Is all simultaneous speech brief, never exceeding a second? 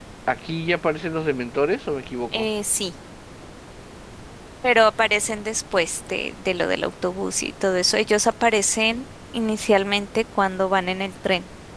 Yes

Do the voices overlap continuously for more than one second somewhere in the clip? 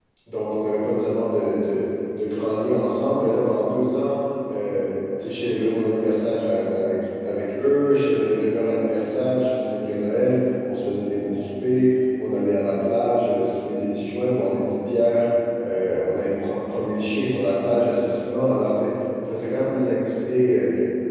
No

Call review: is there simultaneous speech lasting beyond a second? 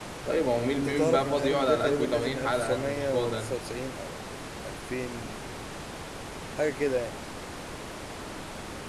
Yes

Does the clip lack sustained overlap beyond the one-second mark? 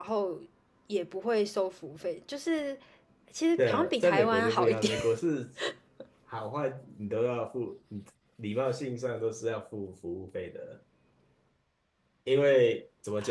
No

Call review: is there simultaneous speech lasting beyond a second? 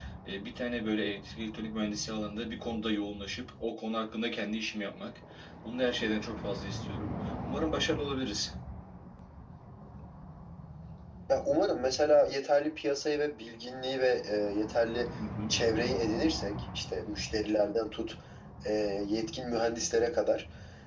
No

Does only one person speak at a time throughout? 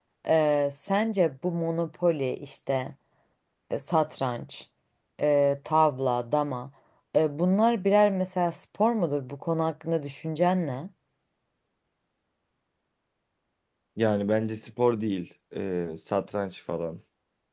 Yes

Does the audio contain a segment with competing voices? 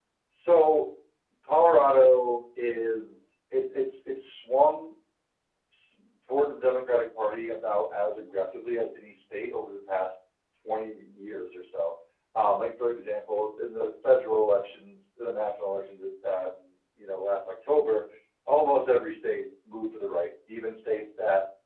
No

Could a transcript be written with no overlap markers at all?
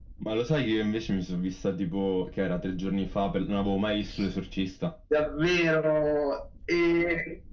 Yes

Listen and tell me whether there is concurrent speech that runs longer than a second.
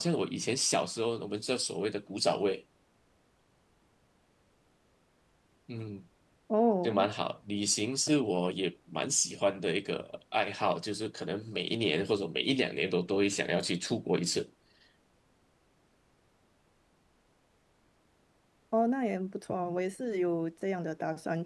No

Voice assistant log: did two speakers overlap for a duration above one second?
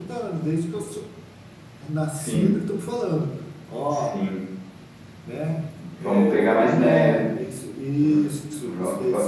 Yes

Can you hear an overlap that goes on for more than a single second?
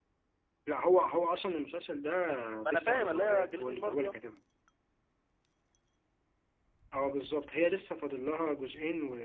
Yes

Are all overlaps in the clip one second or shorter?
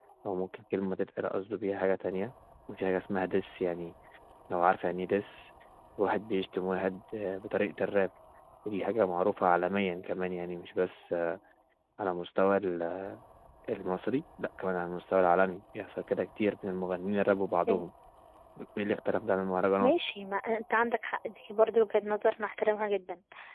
Yes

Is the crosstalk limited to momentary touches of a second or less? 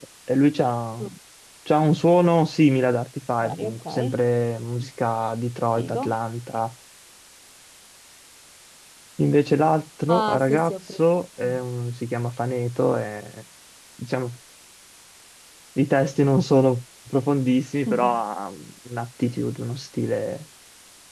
No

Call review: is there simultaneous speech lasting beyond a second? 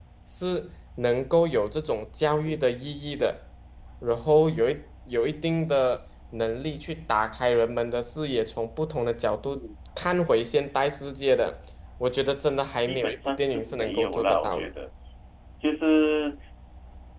Yes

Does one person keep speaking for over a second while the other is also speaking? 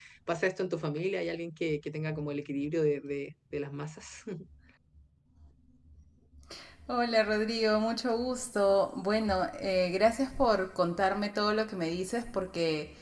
No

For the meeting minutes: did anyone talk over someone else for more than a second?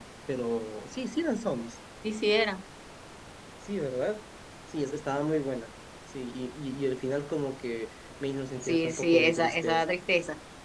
Yes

